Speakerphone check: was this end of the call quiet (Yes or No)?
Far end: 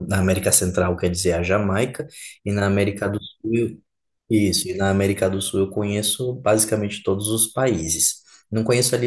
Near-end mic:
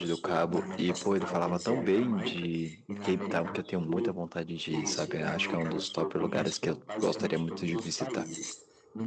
No